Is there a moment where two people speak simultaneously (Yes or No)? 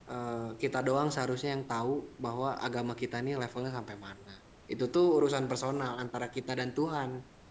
No